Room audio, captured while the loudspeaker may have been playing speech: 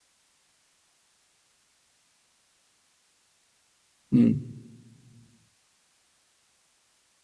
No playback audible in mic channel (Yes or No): Yes